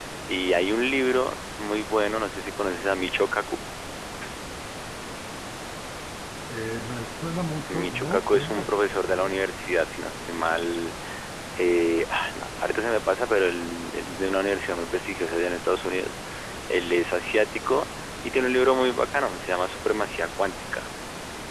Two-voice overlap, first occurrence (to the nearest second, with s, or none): 8 s